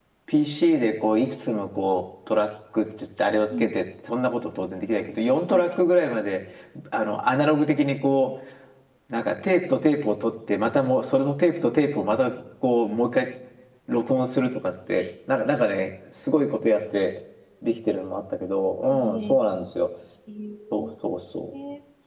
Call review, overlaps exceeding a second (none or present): none